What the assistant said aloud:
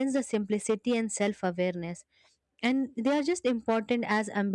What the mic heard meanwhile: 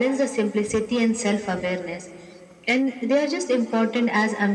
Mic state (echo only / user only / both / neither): echo only